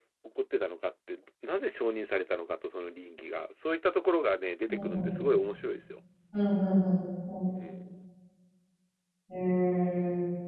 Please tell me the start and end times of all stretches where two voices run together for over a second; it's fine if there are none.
none

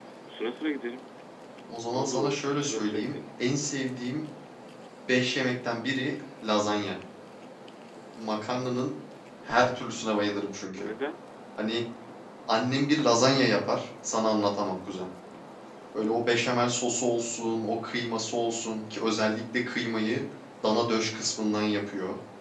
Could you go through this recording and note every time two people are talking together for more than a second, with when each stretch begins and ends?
1.8-3.2

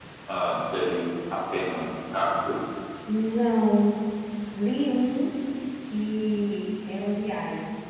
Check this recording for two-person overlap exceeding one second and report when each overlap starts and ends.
none

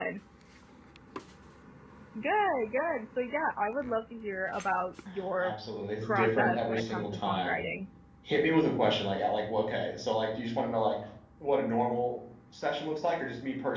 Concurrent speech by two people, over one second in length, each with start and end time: 6.0-7.6

